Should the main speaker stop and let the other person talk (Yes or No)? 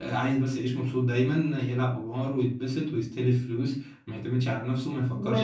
Yes